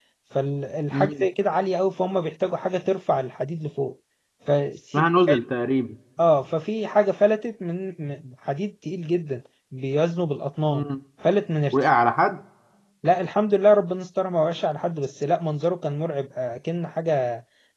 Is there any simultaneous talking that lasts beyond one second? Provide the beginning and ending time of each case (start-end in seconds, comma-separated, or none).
none